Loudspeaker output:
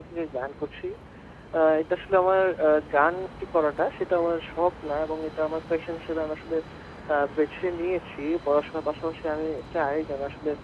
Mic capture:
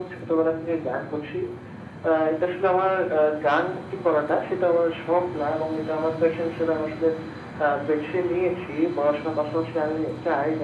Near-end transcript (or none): none